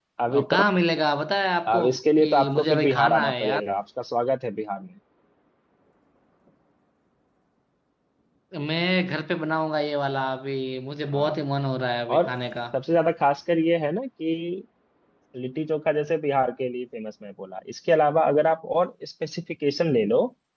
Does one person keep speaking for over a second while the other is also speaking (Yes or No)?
Yes